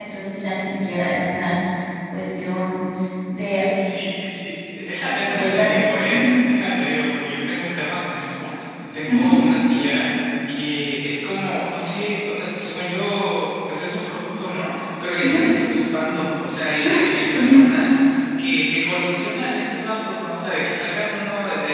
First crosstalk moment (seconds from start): 5.2 s

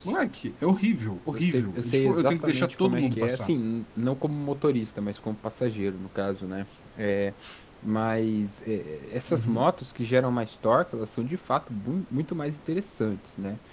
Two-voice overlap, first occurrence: 1.3 s

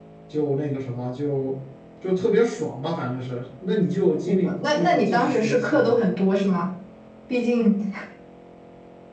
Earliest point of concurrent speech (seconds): 4.3 s

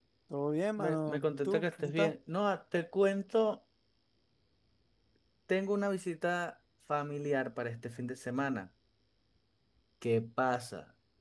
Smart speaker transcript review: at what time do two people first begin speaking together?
0.8 s

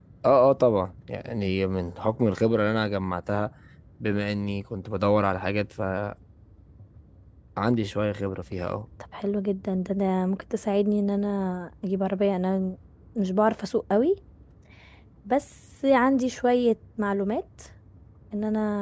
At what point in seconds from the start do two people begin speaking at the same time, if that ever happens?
none

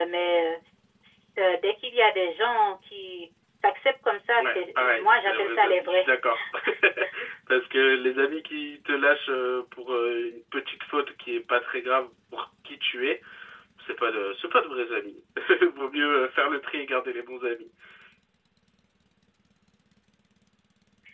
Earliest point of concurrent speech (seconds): 4.4 s

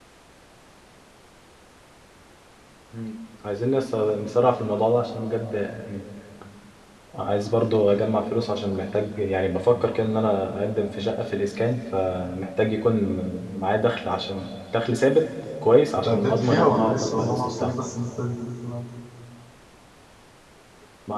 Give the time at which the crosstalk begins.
15.9 s

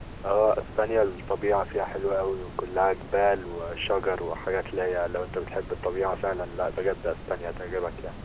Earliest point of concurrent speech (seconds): none

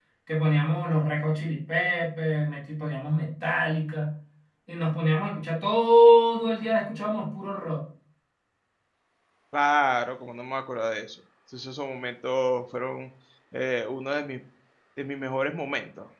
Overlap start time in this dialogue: none

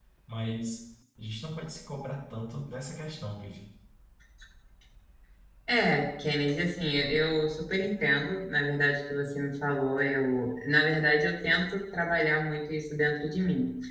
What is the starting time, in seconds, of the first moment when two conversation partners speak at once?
none

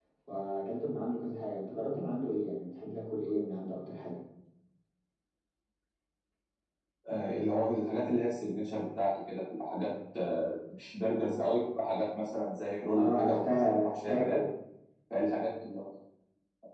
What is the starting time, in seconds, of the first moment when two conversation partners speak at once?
12.9 s

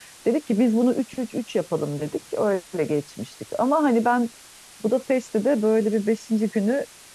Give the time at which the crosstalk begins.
none

